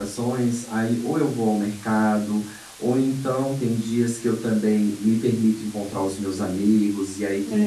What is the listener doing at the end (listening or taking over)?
listening